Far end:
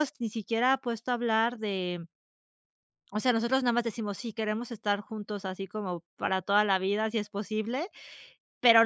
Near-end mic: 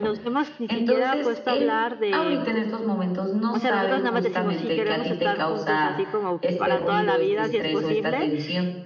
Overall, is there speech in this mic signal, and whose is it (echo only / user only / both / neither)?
both